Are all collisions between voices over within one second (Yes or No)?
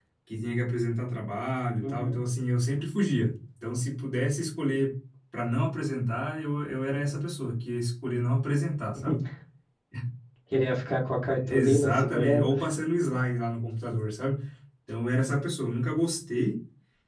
No